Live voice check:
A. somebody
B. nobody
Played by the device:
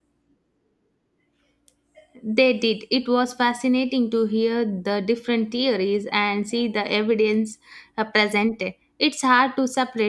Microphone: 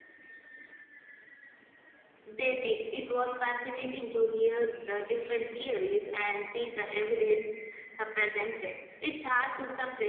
B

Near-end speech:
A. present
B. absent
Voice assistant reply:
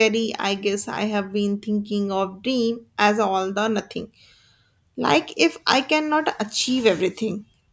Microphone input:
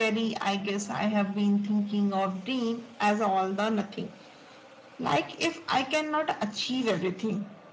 B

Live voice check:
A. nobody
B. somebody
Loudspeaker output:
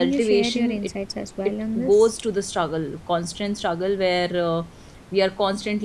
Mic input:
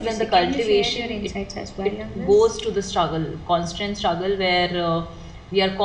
A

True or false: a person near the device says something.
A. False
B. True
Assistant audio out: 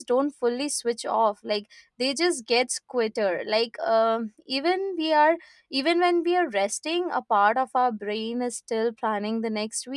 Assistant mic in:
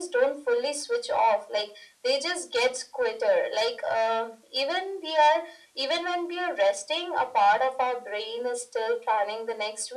A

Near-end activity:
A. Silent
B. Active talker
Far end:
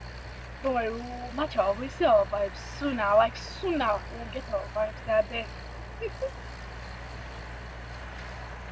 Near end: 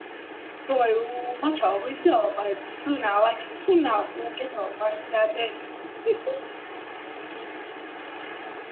A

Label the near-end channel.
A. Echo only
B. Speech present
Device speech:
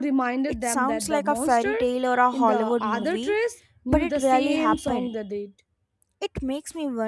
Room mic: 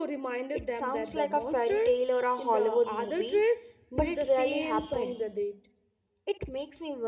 A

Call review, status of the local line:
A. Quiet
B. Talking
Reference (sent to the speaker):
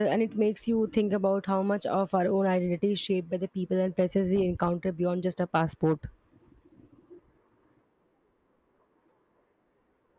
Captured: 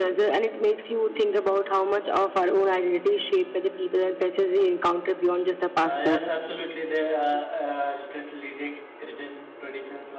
B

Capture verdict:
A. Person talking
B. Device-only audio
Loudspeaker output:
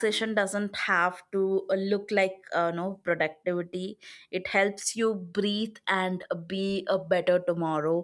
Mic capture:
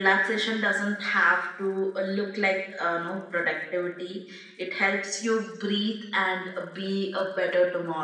B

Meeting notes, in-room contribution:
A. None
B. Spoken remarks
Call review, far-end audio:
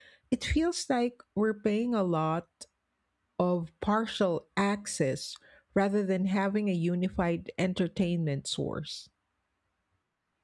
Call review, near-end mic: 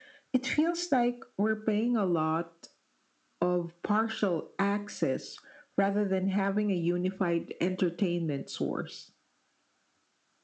A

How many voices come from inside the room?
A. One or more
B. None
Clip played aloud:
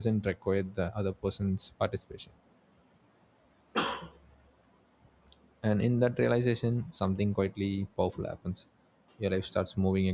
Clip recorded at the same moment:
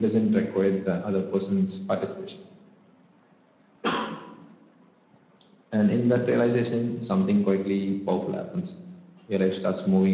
B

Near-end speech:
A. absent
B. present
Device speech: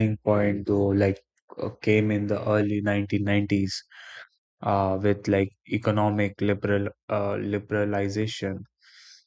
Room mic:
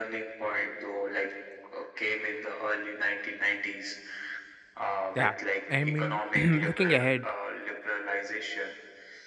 B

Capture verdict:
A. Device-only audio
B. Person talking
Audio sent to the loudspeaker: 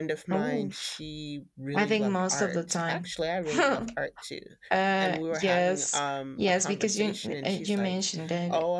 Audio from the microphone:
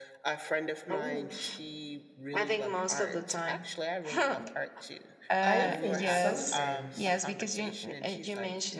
B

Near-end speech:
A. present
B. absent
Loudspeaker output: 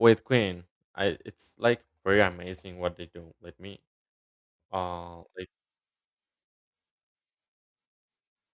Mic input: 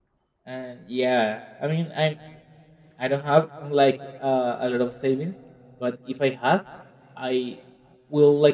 A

